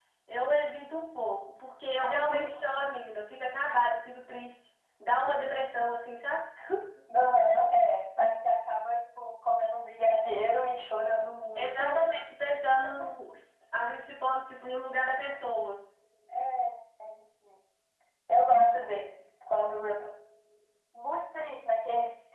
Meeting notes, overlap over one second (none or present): none